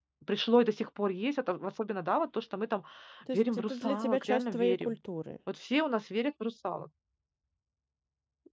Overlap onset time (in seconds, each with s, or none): 3.3 s